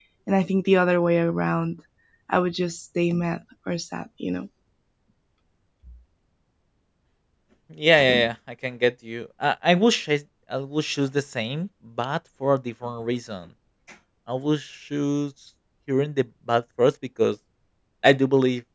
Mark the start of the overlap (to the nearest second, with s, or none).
none